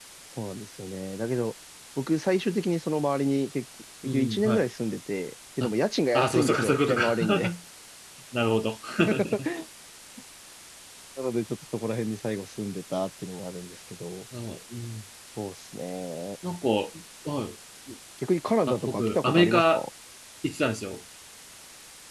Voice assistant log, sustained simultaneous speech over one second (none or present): present